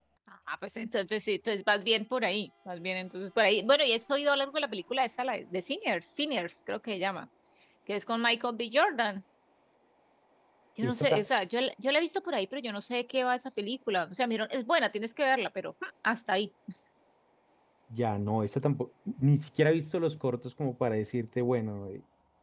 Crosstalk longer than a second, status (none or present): none